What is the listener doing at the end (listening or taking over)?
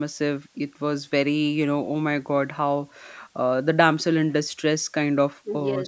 taking over